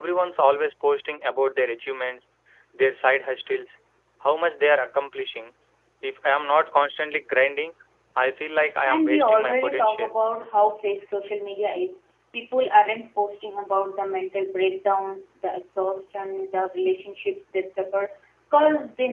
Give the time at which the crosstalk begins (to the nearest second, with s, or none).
9 s